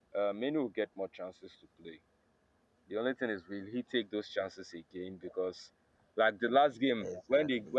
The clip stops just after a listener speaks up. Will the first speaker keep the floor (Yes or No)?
Yes